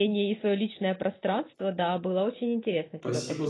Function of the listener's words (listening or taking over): taking over